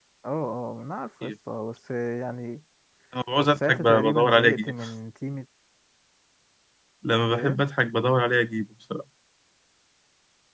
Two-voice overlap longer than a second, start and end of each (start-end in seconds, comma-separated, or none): 3.5-4.8